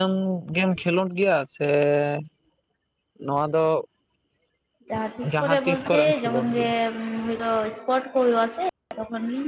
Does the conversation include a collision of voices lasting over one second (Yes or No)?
Yes